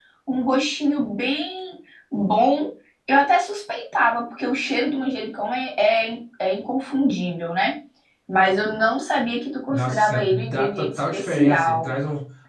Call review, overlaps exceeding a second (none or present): present